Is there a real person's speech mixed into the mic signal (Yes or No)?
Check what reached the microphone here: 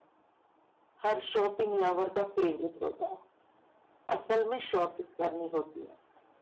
No